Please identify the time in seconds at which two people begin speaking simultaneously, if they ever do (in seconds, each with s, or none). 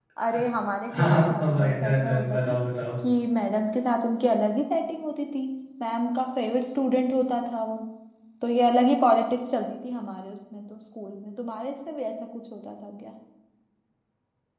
1.0 s